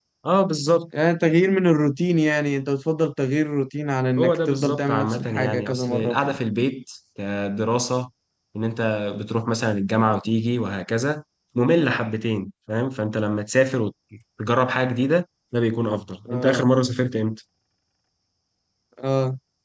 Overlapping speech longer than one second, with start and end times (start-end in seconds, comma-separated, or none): 4.2-6.4